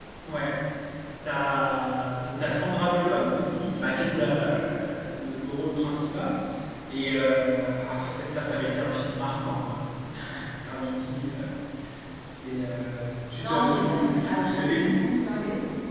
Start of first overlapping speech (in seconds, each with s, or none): 13.4 s